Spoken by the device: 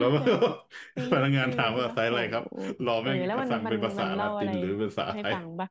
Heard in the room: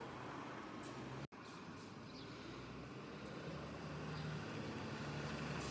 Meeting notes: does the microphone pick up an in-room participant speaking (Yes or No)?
No